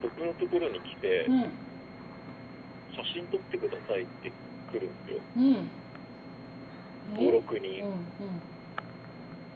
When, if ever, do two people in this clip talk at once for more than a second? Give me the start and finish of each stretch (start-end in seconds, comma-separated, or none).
none